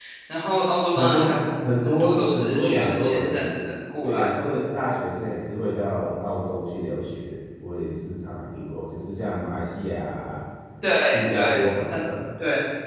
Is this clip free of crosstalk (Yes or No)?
No